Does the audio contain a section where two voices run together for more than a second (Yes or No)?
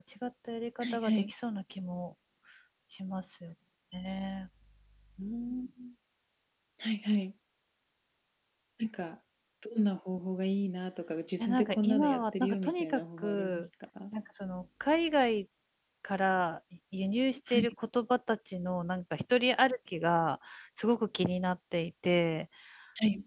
Yes